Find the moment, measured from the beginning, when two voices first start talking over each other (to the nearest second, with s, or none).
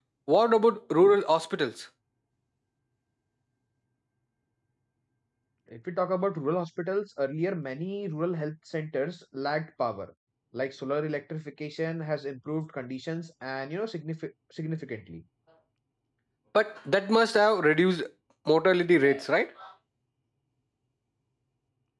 none